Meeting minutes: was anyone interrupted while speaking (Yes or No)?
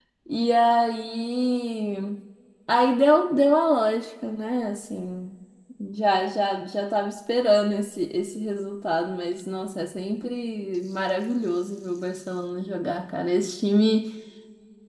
No